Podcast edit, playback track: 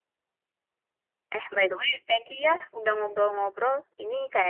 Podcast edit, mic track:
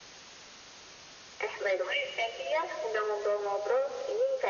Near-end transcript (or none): none